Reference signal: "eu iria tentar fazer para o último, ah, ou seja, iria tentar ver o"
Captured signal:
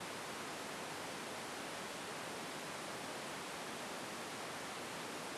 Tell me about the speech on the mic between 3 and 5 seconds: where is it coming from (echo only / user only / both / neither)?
neither